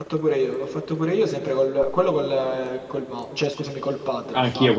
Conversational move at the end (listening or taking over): taking over